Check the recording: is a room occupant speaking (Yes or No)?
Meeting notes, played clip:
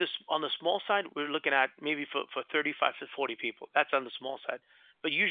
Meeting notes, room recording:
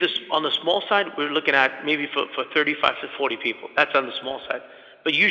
No